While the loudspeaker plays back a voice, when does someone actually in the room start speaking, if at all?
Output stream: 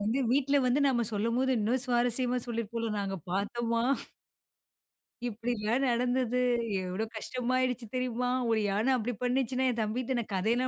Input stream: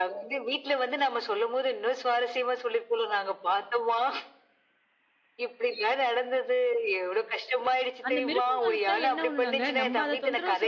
8.1 s

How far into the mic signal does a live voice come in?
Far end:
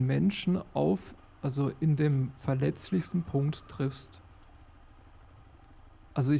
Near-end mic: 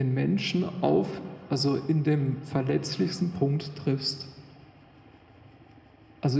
none

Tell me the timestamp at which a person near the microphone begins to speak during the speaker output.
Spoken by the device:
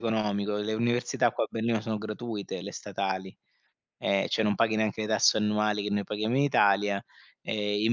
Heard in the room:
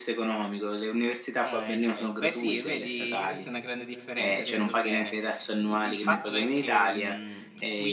1.4 s

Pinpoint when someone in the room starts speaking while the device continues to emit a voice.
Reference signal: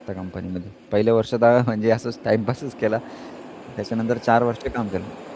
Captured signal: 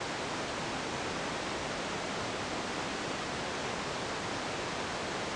none

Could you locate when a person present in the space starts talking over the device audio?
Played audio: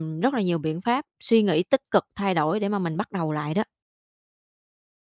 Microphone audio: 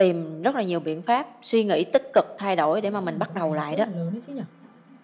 2.8 s

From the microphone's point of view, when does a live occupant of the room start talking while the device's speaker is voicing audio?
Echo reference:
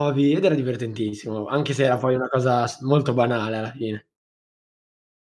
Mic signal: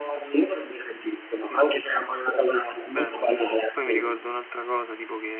1.3 s

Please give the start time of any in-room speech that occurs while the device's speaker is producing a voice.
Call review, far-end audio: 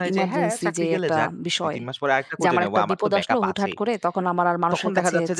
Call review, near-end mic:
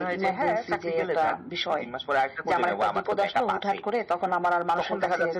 none

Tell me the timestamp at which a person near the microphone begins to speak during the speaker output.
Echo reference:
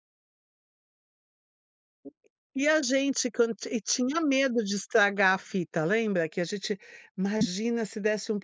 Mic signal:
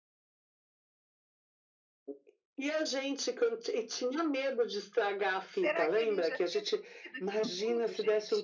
5.5 s

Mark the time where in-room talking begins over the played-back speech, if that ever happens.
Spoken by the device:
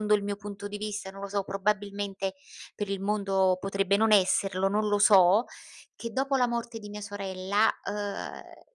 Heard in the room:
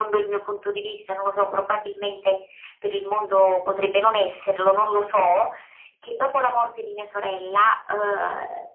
none

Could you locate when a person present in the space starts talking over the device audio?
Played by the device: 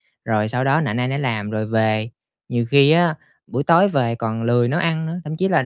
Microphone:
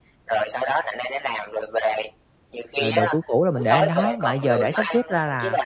2.8 s

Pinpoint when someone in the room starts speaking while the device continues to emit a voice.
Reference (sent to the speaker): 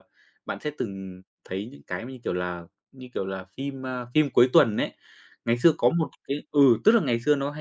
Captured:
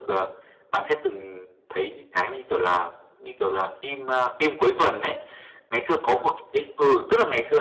none

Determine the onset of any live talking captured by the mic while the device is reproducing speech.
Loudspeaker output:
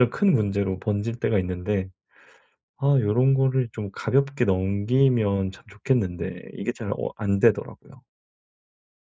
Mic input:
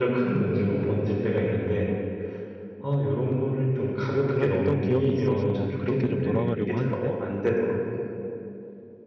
4.3 s

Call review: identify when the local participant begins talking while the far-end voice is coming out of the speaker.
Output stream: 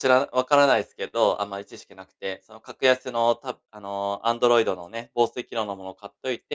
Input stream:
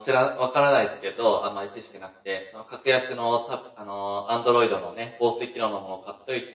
none

